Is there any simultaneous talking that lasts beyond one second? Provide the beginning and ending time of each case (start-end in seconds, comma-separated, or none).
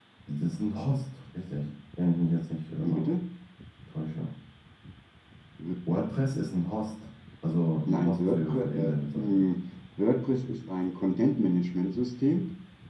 7.9-9.4